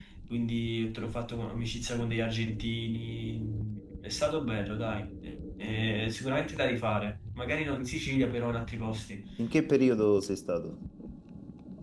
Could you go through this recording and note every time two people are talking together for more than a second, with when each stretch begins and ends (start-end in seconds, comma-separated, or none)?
none